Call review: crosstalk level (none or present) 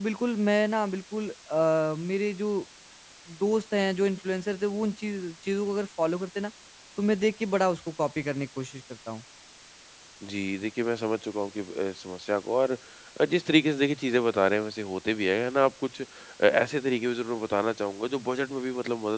none